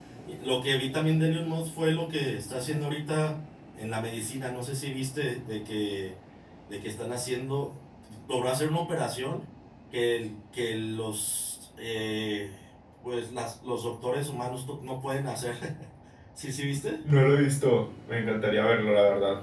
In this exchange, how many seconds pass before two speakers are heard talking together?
none

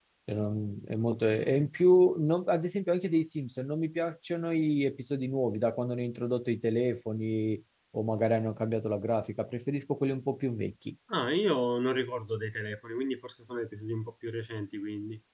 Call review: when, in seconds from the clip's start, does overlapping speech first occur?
none

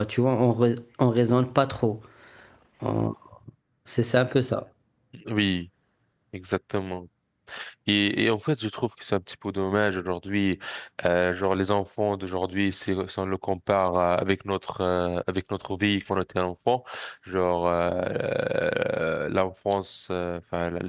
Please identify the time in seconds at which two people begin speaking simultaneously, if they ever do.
none

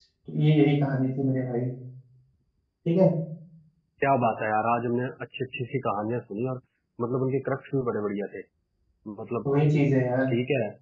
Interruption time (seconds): none

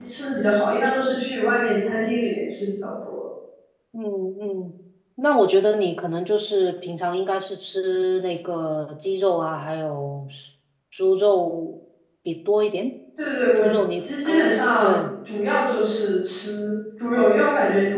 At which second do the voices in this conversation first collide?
13.6 s

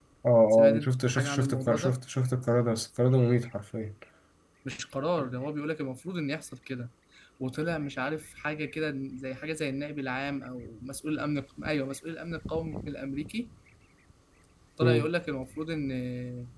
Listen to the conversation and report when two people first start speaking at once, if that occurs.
0.7 s

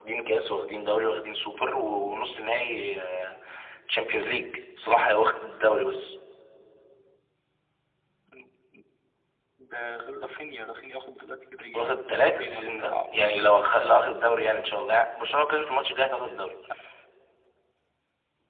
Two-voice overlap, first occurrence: 11.7 s

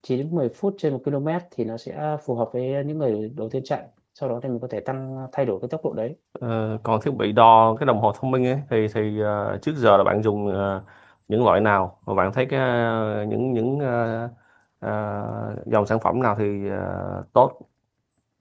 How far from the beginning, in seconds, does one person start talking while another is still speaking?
none

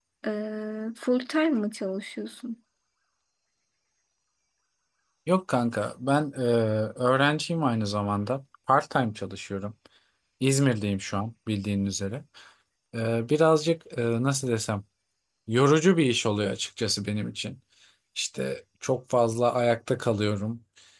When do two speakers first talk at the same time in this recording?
none

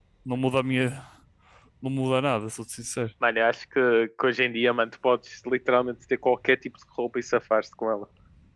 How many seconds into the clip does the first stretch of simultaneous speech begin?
none

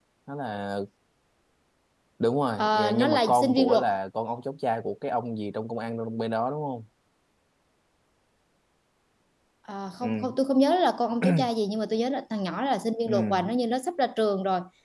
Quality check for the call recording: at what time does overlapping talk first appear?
2.6 s

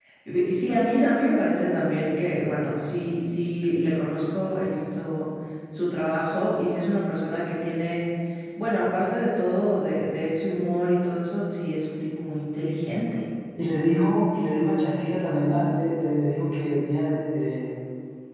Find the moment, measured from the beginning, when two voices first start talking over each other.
none

